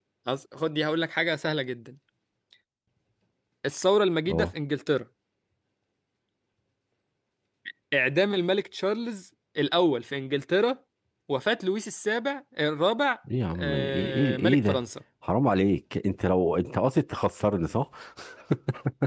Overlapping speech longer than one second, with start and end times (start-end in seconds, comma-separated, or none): 13.6-14.8